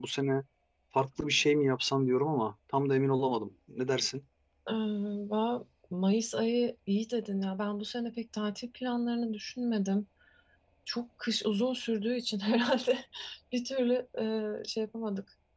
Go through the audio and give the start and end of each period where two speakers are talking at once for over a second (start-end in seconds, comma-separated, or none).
none